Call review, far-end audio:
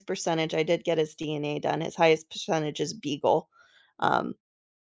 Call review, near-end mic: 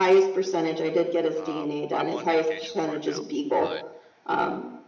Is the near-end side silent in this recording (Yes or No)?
No